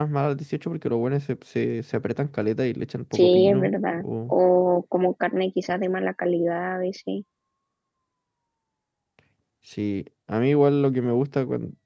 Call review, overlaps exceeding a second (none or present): present